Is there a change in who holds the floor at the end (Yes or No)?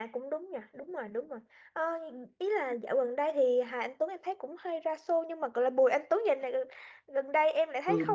Yes